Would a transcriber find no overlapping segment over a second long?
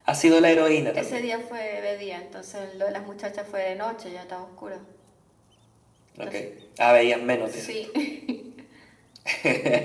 Yes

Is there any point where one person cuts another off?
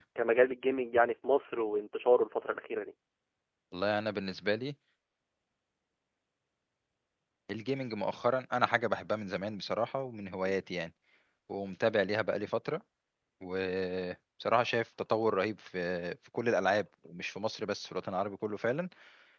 No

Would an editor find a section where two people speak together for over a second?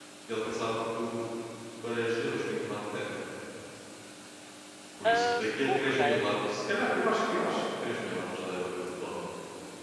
Yes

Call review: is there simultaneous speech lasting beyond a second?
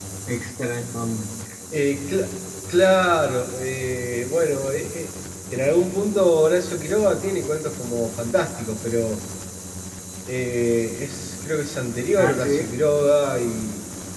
No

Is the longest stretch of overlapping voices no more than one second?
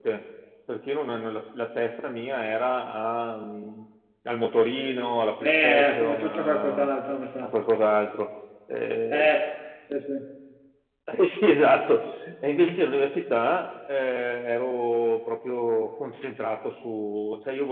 No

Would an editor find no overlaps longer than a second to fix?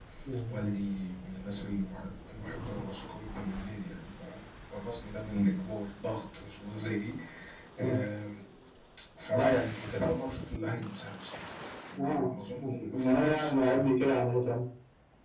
No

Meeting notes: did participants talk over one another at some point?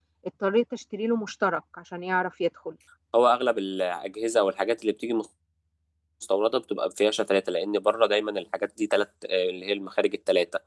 No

